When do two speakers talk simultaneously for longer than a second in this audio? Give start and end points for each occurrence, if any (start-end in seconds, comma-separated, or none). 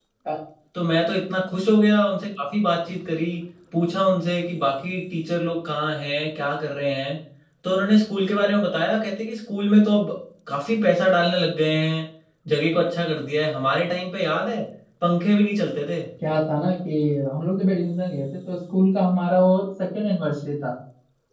none